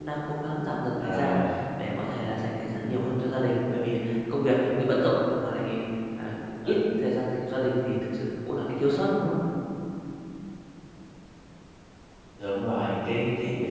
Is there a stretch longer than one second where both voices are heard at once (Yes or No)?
No